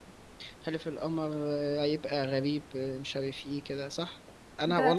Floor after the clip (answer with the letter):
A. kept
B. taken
B